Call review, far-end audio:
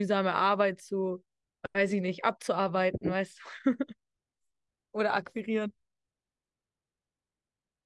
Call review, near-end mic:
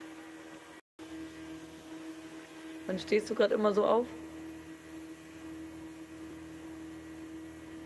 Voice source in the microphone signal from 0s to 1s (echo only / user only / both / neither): neither